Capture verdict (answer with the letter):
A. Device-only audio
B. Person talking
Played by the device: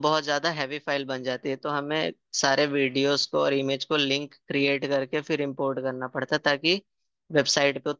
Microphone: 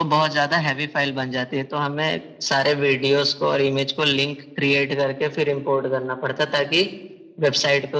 A